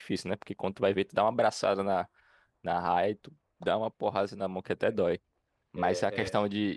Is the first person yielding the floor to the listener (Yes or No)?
No